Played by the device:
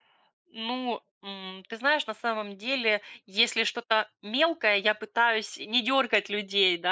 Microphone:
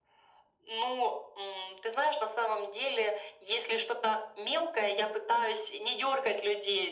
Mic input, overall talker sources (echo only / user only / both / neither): echo only